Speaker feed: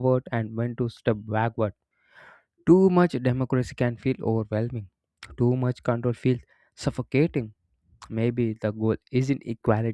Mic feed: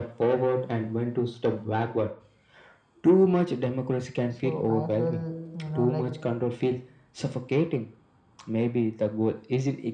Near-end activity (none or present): present